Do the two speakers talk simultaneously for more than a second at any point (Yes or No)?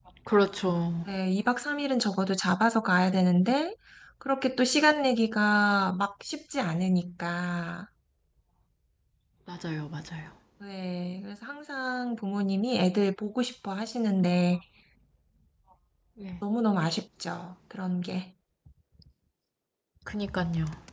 No